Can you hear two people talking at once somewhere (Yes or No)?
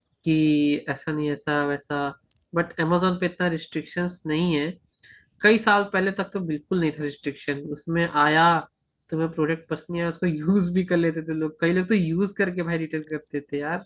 No